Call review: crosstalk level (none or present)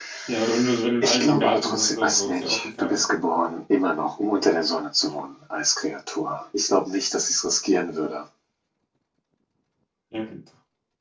present